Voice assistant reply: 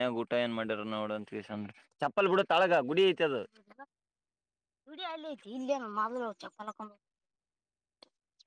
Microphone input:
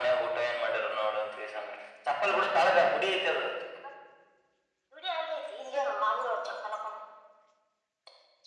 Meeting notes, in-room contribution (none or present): none